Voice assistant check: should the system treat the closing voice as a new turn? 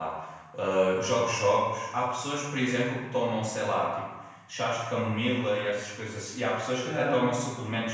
No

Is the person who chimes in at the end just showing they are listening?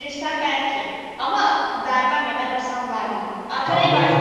Yes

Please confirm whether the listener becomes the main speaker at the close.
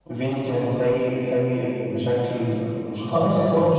Yes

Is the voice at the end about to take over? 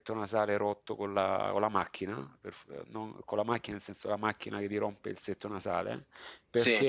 No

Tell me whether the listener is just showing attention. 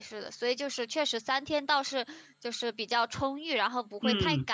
No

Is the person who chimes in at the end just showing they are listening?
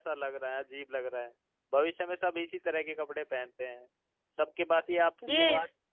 Yes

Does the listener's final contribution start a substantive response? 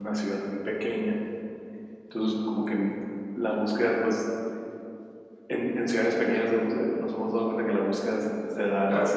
No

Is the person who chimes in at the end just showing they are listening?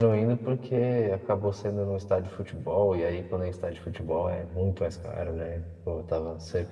Yes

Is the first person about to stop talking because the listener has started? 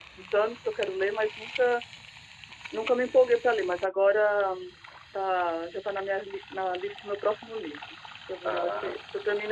No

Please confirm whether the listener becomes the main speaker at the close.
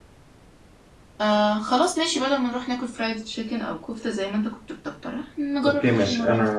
Yes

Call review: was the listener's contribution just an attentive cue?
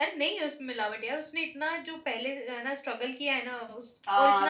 No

